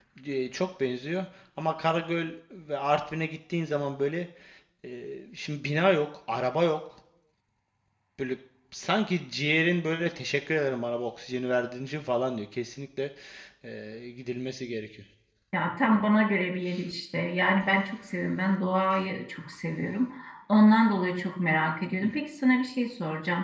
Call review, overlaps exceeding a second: none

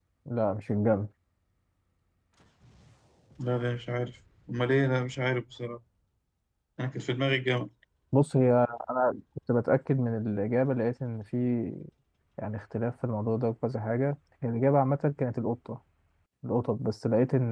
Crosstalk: none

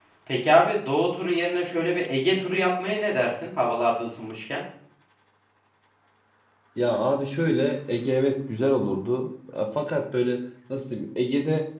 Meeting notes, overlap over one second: none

